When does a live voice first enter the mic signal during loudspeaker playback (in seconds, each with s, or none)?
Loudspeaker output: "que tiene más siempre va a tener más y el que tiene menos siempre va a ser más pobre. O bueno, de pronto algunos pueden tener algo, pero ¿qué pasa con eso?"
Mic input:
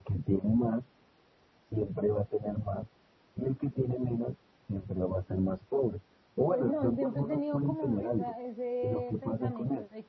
6.5 s